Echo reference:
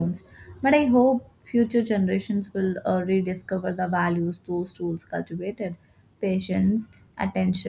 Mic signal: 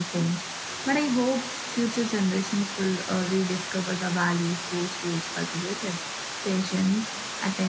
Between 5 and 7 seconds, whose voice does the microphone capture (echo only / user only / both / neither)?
echo only